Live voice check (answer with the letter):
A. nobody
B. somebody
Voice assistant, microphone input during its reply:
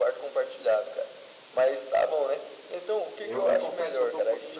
B